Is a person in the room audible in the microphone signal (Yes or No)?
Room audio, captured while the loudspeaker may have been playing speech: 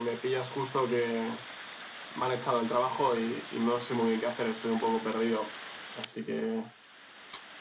No